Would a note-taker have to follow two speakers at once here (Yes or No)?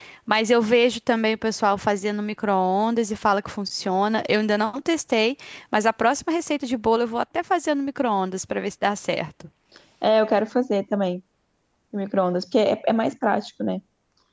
No